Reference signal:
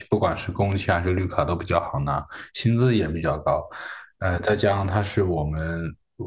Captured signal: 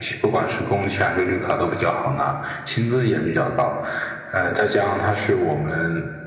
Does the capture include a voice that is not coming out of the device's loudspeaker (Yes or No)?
No